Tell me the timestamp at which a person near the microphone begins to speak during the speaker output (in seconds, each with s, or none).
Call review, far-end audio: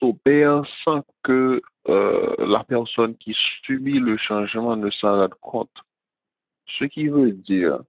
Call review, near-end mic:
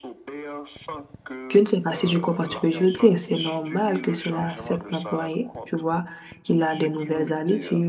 1.5 s